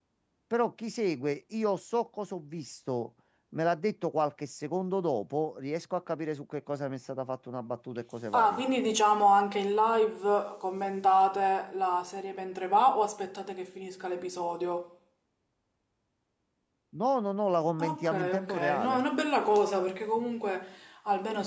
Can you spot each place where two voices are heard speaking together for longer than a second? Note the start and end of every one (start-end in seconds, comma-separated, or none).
17.8-19.0